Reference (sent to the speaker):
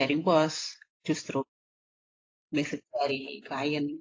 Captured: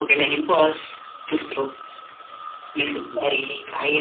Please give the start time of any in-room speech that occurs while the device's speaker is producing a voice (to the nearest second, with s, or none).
3 s